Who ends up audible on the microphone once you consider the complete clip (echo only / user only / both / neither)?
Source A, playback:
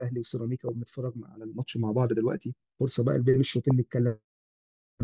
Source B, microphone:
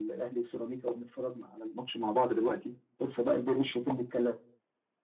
echo only